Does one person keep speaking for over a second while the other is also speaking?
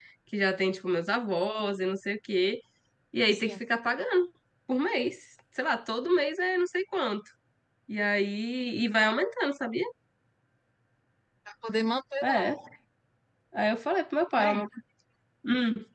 No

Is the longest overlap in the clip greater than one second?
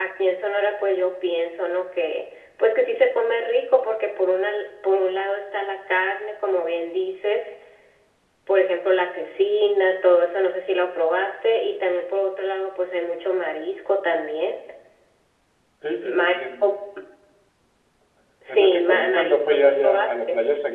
Yes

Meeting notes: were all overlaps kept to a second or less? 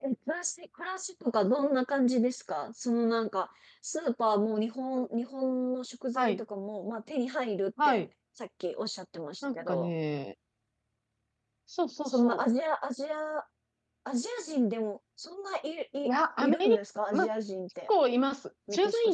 Yes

